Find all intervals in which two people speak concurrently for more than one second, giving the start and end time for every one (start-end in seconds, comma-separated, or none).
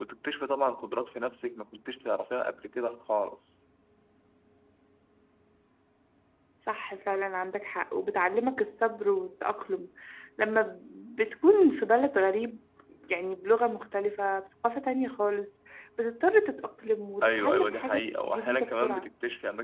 17.2-19.0